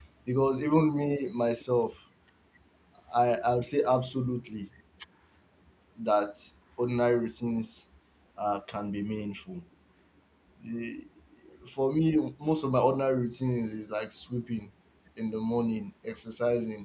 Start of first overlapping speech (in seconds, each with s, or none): none